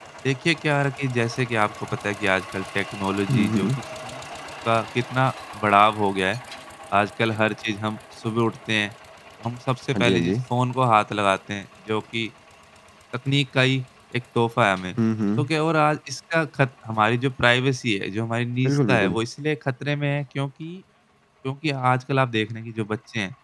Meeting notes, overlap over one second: none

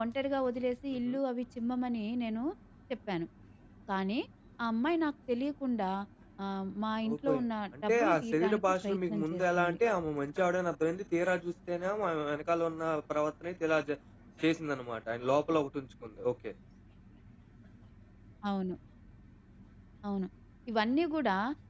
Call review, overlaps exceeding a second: present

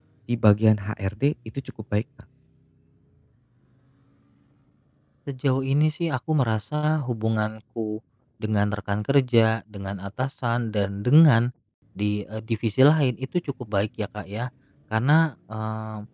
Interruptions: none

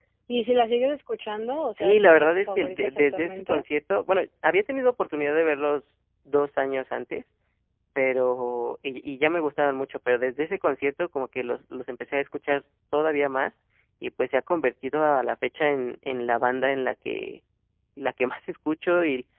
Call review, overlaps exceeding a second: present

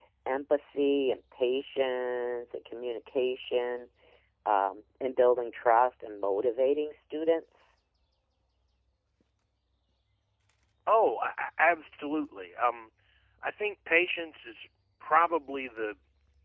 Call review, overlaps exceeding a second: none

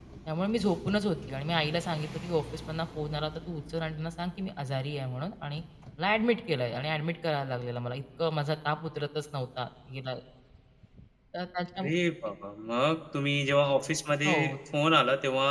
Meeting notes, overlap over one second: none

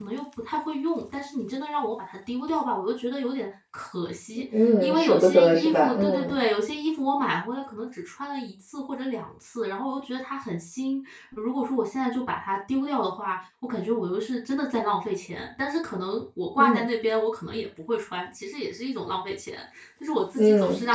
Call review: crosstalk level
present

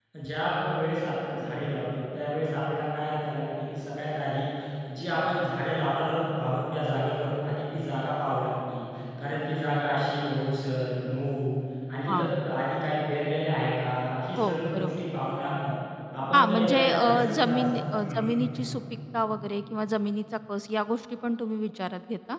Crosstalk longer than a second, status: present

